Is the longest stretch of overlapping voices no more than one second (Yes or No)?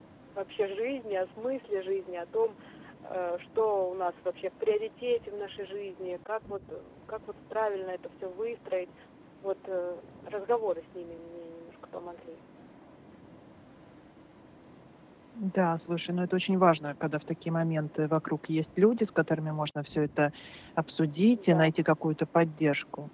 Yes